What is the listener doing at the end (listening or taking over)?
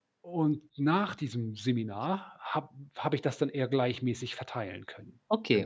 taking over